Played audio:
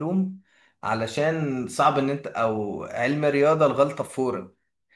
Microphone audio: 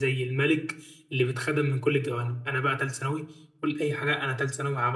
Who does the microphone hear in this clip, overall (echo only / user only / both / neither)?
user only